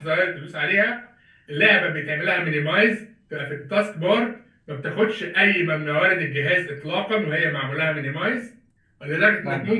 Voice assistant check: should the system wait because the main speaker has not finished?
Yes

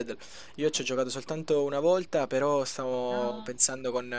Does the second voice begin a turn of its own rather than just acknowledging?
No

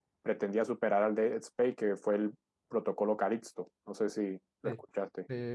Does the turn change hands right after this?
Yes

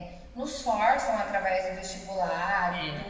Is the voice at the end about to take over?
No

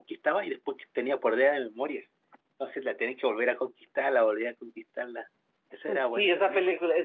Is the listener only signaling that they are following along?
No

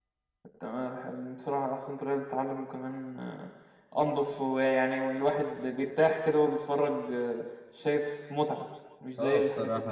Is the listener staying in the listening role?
No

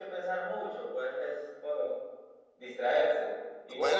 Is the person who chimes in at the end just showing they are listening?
No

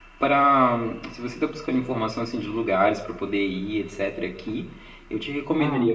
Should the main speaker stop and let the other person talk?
No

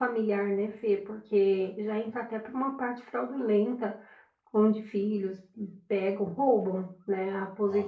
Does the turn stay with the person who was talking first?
Yes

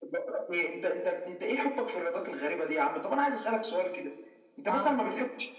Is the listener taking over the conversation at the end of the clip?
No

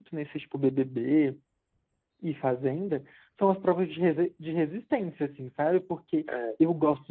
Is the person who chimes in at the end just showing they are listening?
Yes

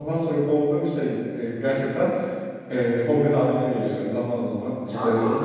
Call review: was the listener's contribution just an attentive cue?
No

